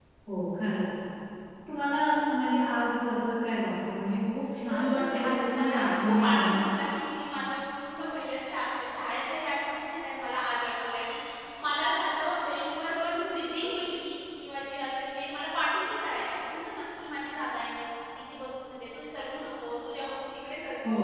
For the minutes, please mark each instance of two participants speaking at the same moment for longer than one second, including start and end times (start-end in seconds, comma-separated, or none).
4.7-6.5